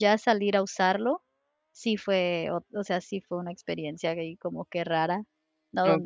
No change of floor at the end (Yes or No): Yes